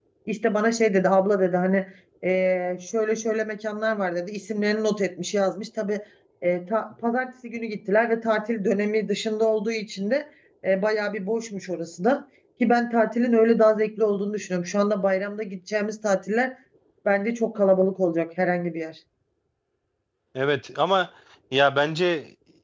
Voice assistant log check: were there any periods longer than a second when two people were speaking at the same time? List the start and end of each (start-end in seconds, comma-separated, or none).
none